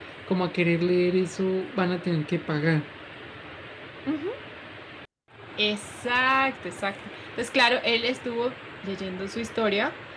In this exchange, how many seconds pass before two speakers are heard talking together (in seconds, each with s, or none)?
none